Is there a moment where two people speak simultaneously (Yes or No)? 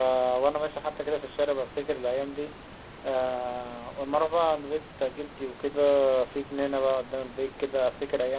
No